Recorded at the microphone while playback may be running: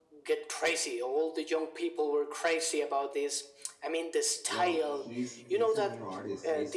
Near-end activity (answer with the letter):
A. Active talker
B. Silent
A